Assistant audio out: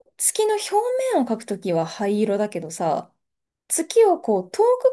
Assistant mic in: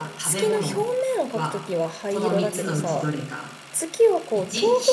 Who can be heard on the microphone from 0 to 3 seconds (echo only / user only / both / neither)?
both